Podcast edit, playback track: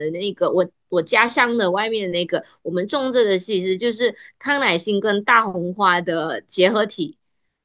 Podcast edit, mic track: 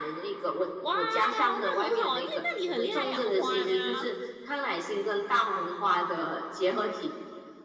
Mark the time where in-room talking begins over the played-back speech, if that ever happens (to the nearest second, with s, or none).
1 s